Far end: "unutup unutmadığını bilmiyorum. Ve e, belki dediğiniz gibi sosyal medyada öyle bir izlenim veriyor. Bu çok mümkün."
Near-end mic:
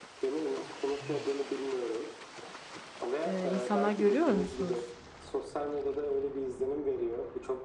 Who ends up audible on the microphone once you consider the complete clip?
both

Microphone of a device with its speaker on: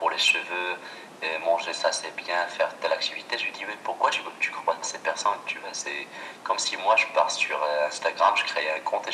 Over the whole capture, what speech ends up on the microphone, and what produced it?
echo only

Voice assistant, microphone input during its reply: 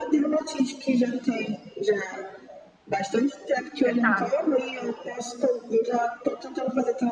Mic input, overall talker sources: both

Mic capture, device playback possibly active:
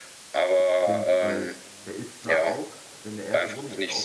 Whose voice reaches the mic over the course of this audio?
both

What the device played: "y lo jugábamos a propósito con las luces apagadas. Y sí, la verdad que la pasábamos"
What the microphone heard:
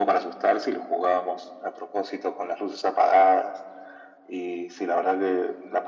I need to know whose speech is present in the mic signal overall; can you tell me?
echo only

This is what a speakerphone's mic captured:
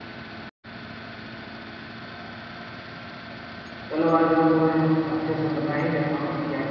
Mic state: user only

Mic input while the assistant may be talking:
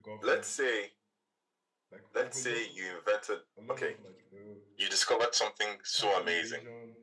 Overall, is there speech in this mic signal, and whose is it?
both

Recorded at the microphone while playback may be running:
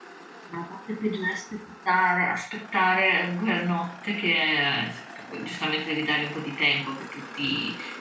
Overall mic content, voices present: user only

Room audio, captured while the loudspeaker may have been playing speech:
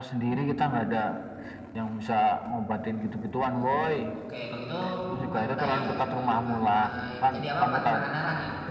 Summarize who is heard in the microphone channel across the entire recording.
both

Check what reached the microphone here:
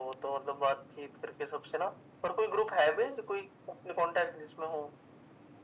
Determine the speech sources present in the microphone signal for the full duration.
echo only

